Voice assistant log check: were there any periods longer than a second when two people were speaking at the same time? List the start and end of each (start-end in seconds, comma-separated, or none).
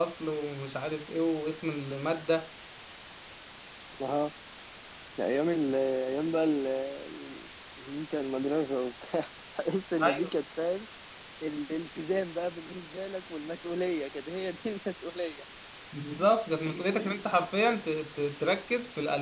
none